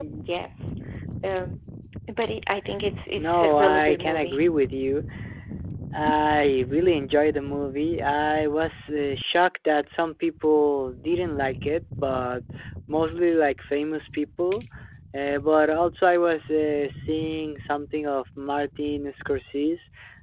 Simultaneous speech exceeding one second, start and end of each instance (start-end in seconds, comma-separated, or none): 3.2-4.4